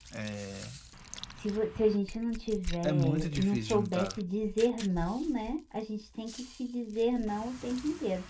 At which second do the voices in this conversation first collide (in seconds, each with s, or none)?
2.8 s